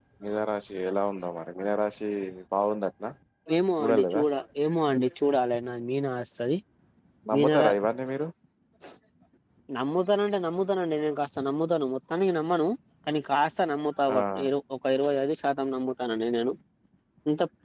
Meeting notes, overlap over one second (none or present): none